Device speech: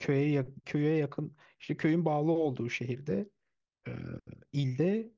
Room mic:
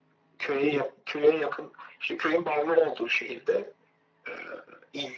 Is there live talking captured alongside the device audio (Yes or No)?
No